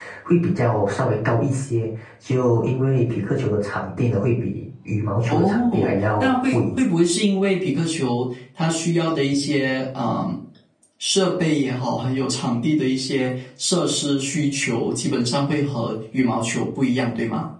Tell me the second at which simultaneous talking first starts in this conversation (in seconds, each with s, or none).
5.3 s